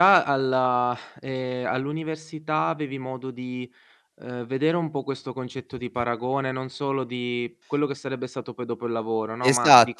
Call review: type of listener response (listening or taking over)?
taking over